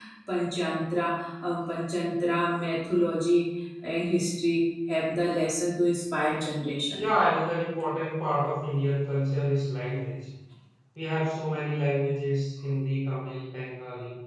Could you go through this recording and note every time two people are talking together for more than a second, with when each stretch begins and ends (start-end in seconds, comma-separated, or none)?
none